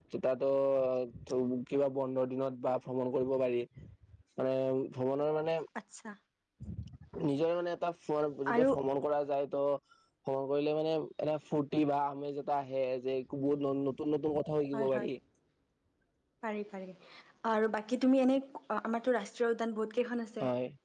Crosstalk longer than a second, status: none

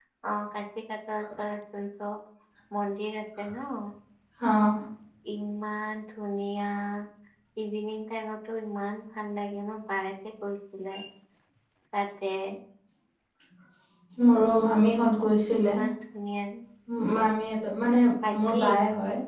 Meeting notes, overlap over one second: none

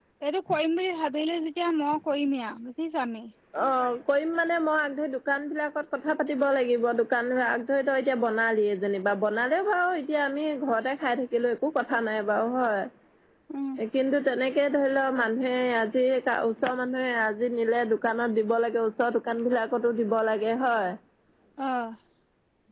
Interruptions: none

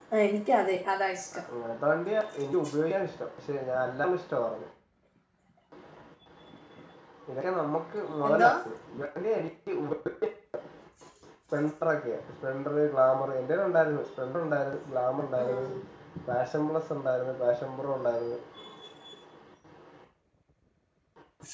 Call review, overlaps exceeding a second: none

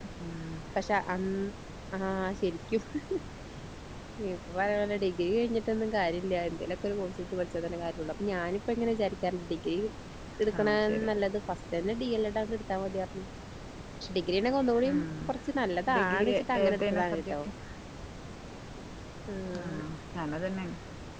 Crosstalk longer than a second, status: present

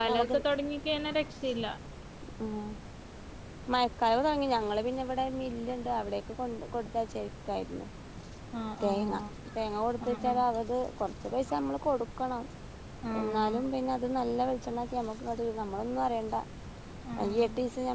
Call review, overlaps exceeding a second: none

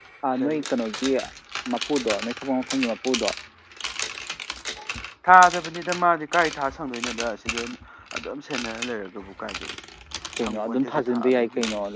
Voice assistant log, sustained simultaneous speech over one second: present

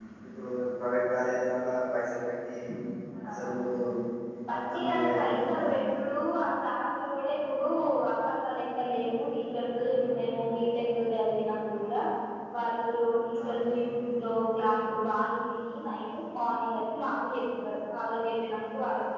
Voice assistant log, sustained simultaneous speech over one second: present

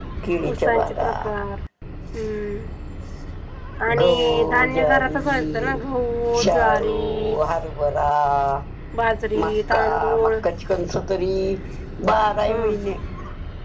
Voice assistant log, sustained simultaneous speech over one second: present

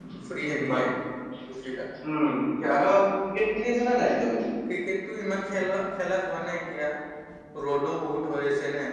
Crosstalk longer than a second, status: none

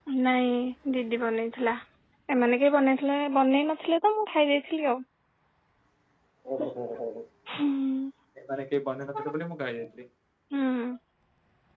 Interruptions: none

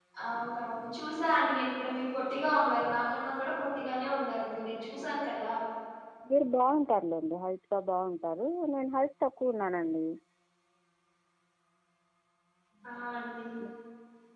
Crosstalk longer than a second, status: none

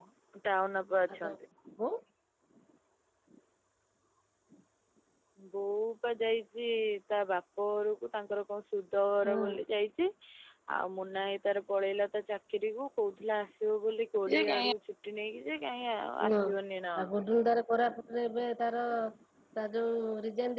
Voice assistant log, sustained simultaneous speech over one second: none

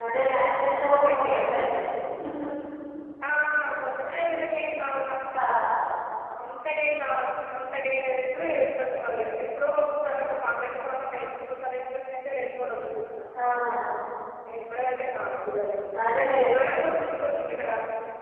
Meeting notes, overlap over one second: none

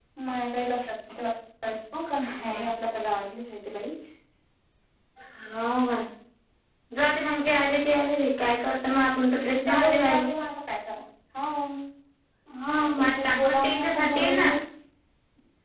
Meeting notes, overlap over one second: present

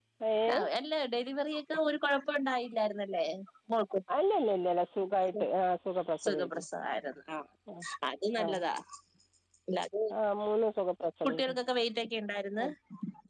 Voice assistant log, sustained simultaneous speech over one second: none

